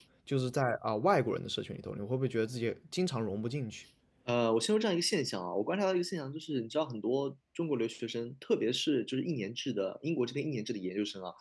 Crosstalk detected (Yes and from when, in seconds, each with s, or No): No